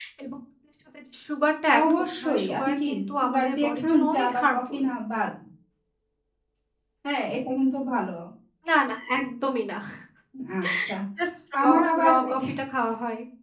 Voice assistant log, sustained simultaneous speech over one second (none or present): present